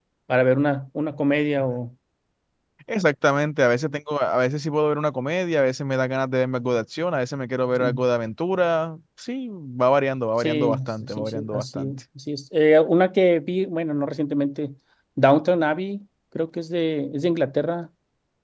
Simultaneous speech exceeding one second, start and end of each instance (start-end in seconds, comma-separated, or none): 10.4-11.9